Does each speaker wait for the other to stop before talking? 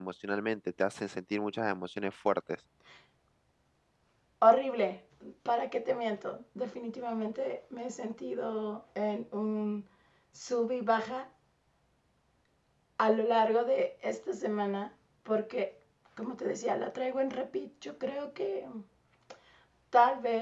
Yes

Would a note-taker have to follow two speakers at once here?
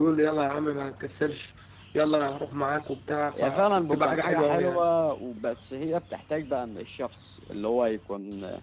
Yes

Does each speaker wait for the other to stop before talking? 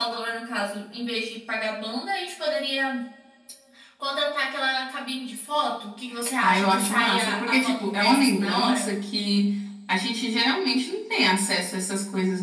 No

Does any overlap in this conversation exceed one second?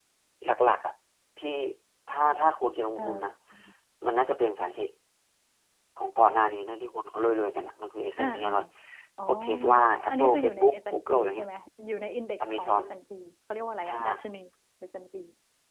Yes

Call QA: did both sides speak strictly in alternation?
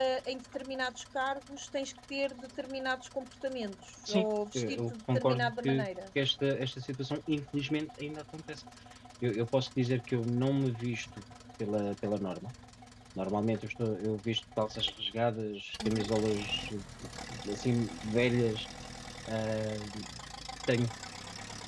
No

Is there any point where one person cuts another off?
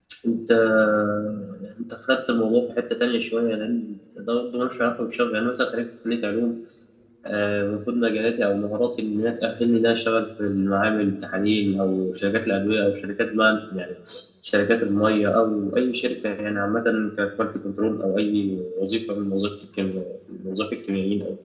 No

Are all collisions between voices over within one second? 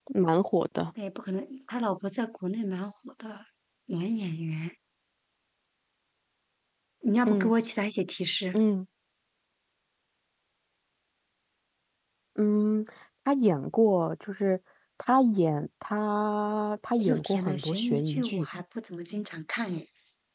No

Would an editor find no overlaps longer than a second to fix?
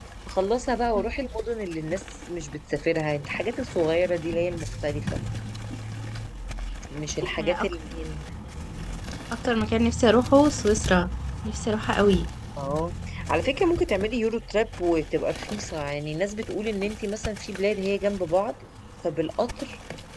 Yes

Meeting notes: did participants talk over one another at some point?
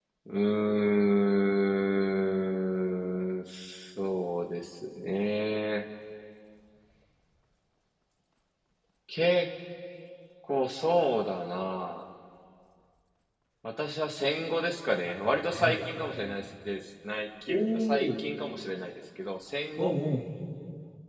Yes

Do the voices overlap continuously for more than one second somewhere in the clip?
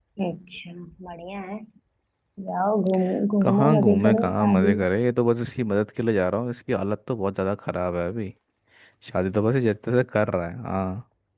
Yes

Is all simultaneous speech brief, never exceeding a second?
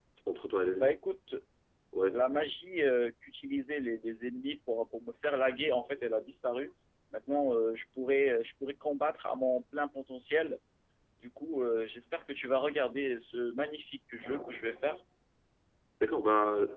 Yes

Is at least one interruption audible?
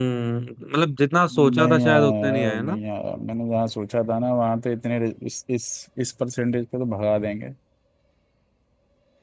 Yes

